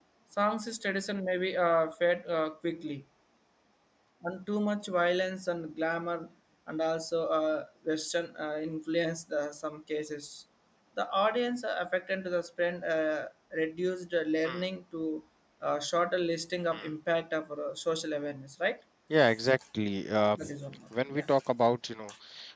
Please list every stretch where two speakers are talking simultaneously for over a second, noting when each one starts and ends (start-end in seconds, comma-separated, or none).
none